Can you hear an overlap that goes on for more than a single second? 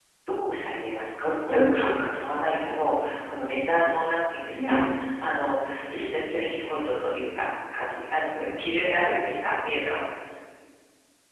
No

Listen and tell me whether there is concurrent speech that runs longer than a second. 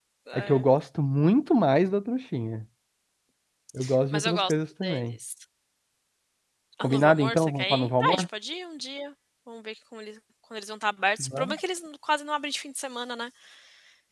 Yes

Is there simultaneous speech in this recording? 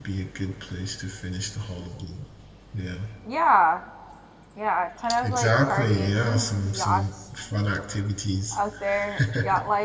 Yes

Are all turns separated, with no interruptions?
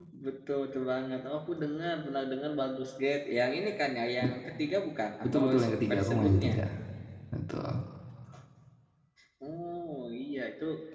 No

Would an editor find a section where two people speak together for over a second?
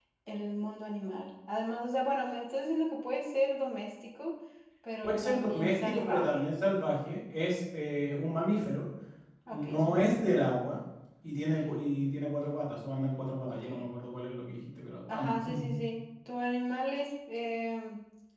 Yes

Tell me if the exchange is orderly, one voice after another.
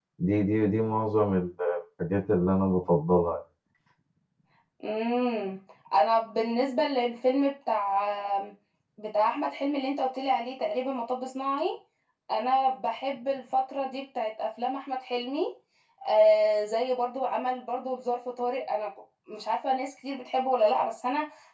Yes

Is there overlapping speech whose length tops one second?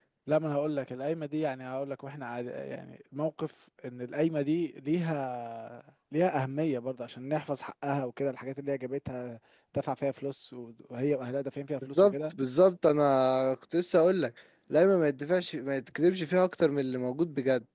No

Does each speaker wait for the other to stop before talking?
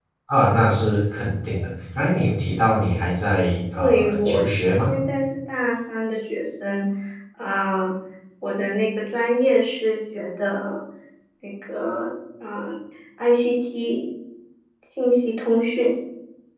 No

